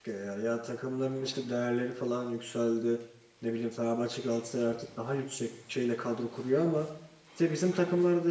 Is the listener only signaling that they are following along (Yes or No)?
Yes